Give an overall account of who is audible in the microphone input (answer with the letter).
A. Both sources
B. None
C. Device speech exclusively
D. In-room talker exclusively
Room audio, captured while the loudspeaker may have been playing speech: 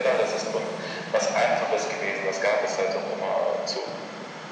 C